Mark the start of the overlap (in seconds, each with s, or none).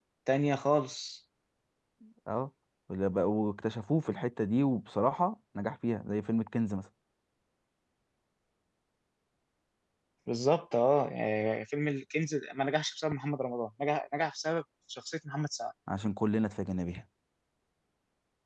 none